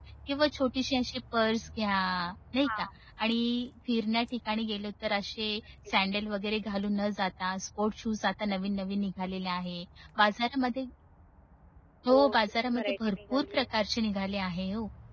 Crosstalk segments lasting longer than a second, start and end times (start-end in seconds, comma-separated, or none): 12.1-13.7